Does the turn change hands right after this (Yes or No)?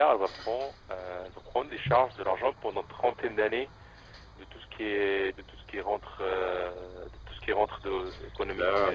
No